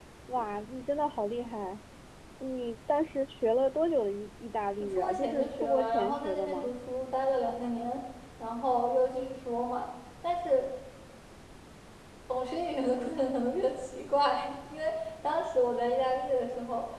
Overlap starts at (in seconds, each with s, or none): 5.0 s